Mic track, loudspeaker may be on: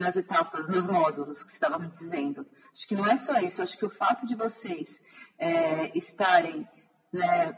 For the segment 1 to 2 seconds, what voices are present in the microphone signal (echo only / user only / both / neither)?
echo only